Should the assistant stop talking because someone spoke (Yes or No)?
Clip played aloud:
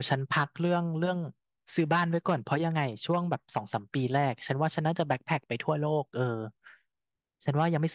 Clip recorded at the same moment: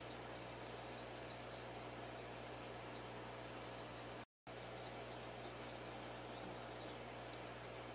No